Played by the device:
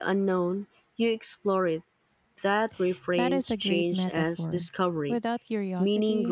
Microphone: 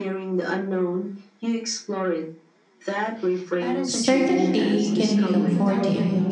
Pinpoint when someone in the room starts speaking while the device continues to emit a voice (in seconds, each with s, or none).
3.9 s